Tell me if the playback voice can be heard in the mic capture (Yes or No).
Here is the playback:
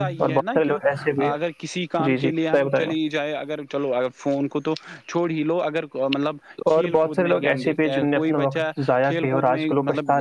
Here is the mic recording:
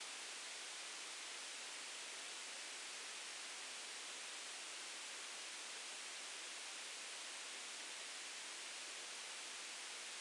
No